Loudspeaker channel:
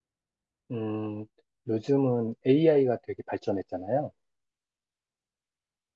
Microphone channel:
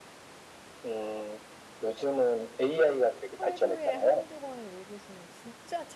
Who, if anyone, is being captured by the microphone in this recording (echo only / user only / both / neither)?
both